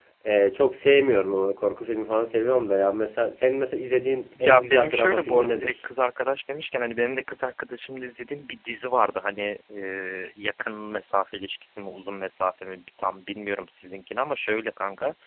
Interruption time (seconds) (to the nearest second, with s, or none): 4 s